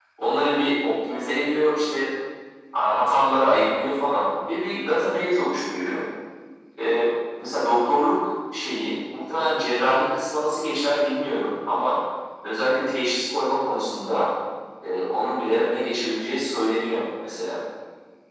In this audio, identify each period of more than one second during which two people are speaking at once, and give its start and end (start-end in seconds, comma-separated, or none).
none